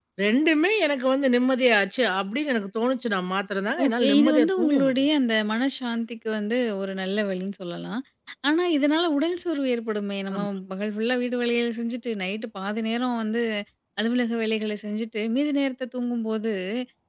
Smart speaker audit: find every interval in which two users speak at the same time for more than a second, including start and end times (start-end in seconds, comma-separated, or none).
3.8-5.1